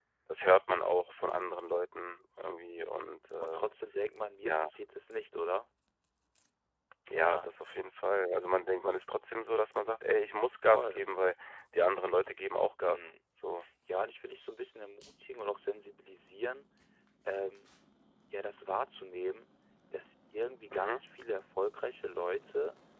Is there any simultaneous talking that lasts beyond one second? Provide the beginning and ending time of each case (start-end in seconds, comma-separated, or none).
none